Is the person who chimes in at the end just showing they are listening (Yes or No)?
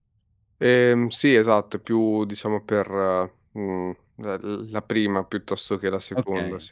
No